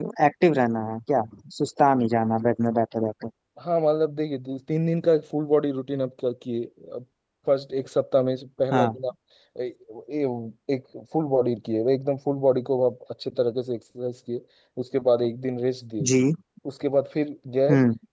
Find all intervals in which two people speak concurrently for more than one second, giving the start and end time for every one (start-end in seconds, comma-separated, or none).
none